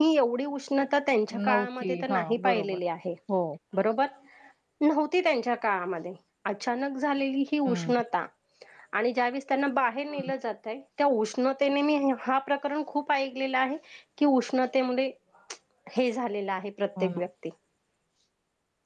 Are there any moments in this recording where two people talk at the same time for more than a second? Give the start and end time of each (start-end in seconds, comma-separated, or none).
1.5-2.8